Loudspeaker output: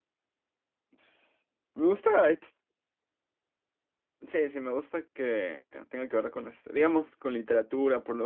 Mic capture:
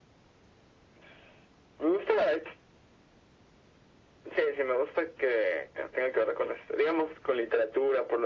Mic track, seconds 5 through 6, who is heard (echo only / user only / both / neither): echo only